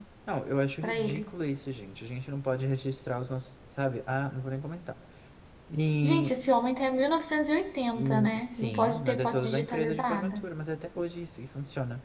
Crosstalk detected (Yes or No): Yes